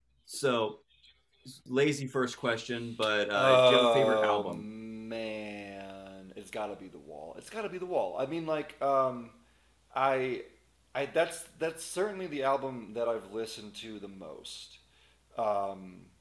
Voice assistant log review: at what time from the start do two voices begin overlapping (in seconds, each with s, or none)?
3.4 s